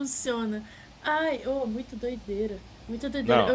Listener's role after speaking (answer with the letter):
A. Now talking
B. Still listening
B